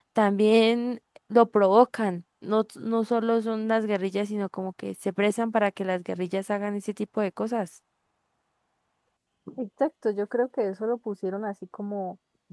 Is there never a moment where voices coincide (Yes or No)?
Yes